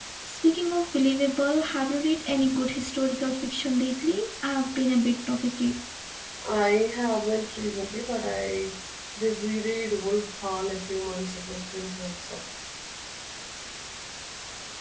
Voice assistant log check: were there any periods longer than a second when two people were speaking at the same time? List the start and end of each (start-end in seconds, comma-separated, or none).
none